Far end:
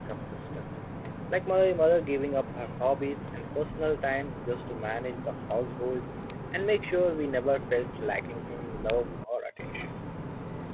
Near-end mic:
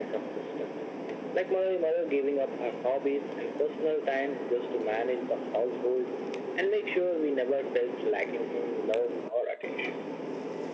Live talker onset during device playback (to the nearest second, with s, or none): none